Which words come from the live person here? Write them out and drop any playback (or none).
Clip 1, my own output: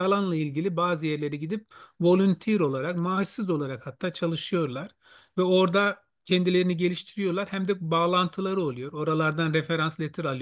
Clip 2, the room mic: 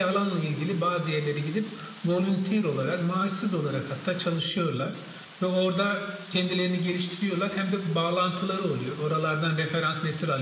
none